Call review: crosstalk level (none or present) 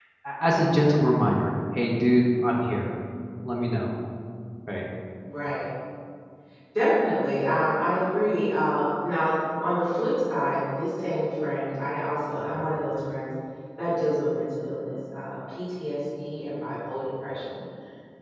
none